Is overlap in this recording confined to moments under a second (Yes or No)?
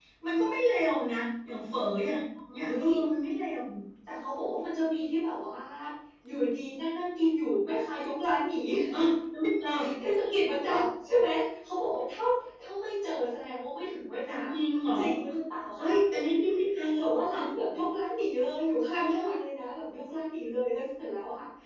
Yes